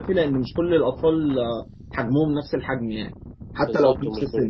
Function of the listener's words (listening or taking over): taking over